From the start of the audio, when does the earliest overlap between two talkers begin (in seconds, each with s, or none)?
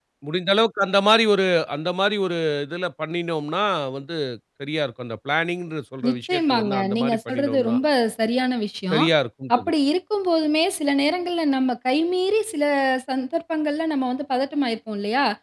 6.0 s